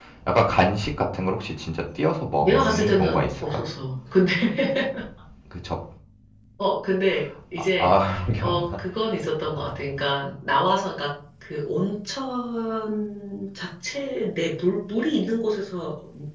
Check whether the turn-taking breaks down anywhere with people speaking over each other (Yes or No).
Yes